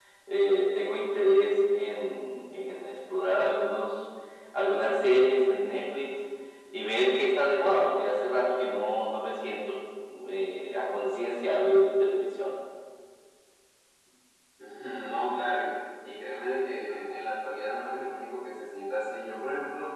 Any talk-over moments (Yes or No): No